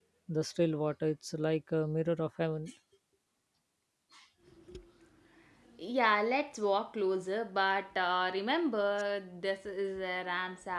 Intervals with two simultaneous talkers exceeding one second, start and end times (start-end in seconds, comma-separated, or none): none